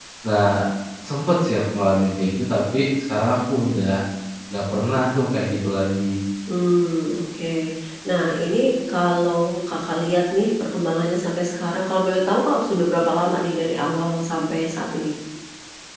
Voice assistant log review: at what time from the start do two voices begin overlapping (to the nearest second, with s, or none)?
none